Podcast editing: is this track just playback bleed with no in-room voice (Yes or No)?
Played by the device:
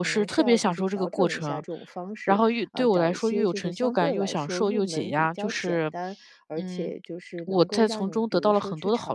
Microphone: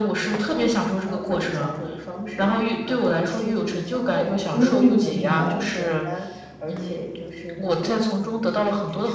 No